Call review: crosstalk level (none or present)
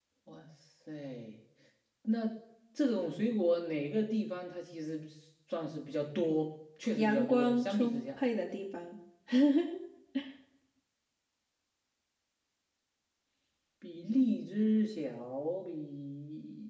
present